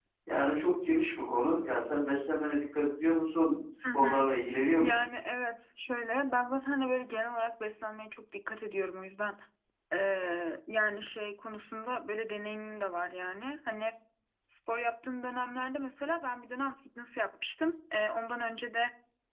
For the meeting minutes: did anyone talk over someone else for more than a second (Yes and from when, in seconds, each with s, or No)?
No